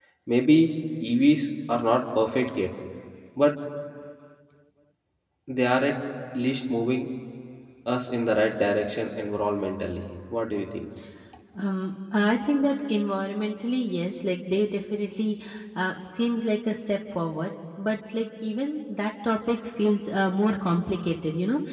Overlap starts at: none

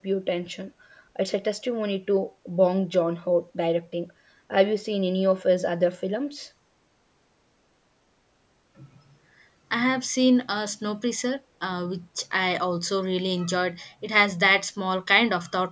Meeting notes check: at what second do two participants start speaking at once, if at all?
none

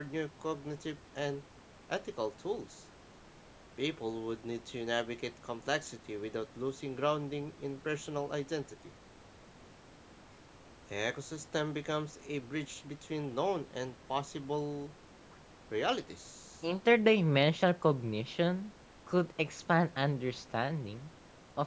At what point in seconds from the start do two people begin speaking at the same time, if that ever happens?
none

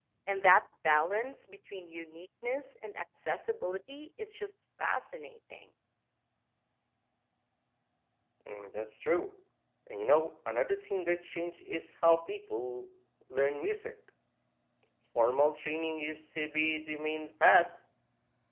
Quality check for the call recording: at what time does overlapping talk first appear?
none

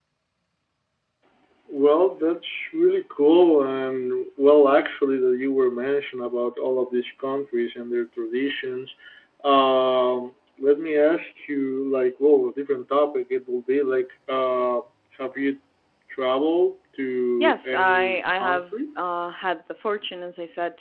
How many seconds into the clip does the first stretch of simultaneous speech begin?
17.4 s

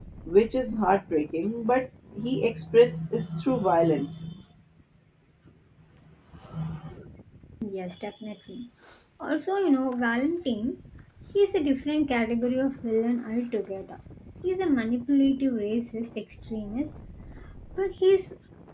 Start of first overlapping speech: none

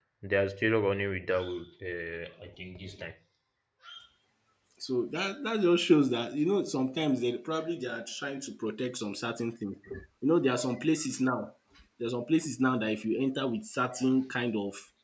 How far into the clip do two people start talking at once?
none

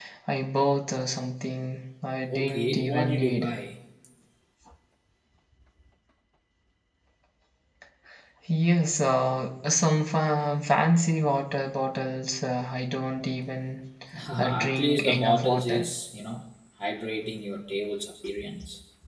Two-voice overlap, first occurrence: 2.3 s

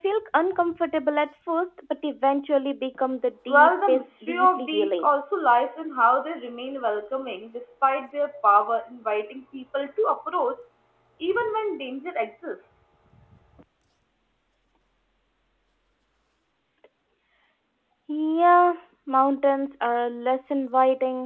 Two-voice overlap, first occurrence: 3.5 s

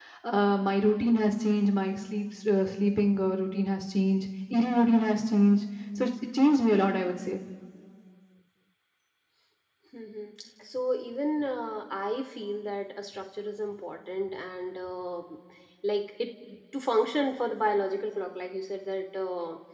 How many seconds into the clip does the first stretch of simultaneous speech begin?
none

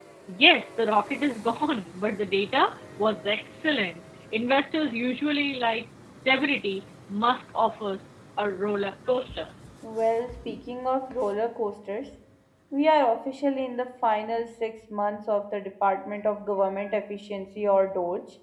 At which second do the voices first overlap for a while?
none

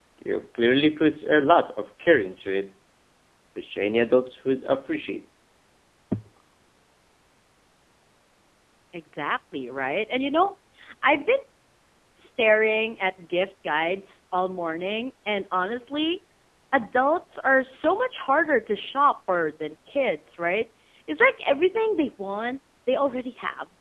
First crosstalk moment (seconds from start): none

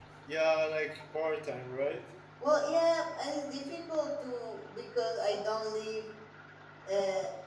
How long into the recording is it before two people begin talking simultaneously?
none

